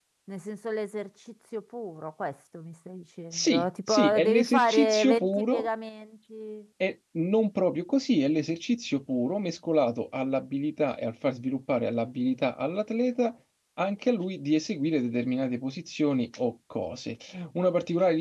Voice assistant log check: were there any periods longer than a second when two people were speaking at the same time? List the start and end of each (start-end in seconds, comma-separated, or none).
3.3-5.7